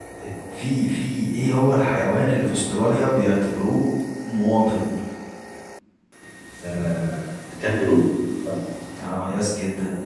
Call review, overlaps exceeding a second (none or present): none